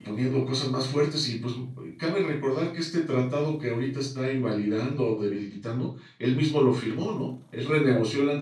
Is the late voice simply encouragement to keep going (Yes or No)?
Yes